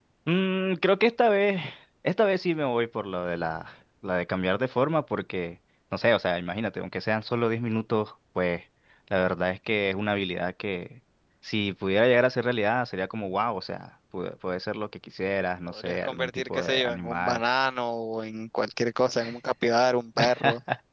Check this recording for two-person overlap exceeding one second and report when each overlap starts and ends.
15.7-17.4

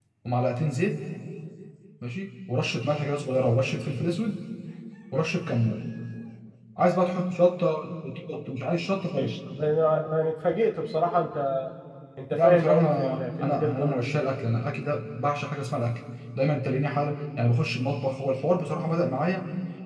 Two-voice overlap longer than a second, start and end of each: 12.3-14.1

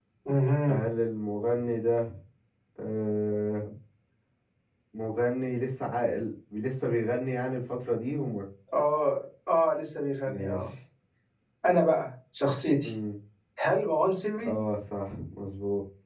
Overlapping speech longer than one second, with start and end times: none

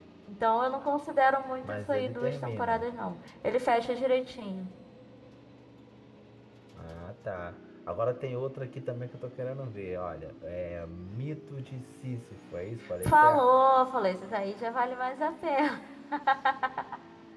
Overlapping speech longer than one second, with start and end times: 1.6-2.8

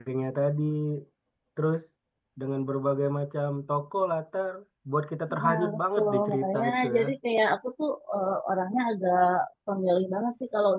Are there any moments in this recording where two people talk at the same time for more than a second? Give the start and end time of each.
5.4-7.0

